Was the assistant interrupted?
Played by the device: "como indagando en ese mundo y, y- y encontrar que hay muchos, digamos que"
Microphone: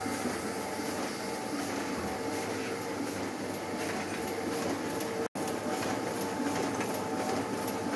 No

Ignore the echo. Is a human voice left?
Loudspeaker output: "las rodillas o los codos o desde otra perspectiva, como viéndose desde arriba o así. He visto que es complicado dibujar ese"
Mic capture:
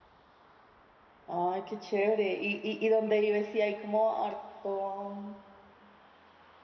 Yes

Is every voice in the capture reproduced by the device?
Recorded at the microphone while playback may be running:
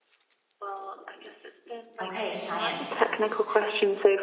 No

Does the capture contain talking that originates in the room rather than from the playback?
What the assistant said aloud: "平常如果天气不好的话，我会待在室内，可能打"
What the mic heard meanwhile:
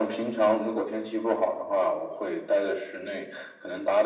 No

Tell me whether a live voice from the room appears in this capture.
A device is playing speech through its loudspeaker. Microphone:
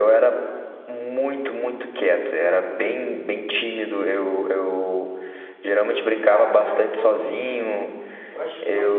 Yes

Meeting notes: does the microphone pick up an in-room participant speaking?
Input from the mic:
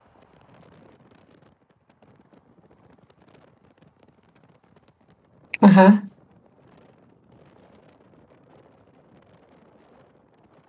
Yes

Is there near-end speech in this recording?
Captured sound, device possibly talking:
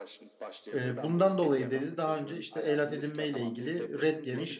Yes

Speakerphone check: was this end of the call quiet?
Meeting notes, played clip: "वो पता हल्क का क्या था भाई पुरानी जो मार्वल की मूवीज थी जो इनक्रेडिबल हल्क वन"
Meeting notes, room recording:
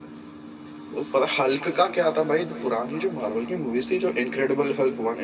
Yes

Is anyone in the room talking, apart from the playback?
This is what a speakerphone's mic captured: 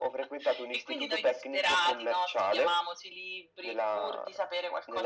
No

